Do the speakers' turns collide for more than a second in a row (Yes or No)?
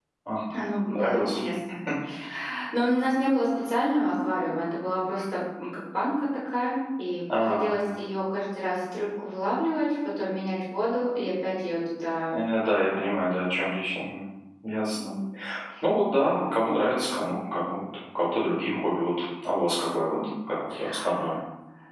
No